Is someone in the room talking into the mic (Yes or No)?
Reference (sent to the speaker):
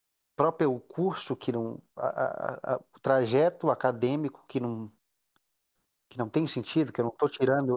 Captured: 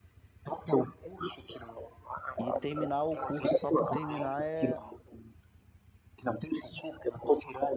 Yes